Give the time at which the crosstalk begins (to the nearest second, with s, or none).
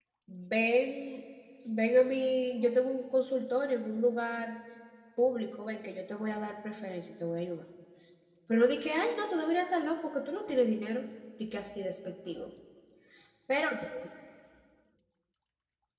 none